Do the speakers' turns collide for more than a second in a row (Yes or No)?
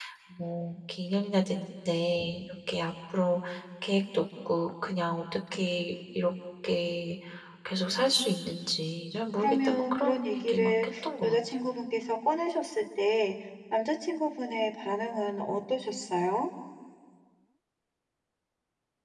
Yes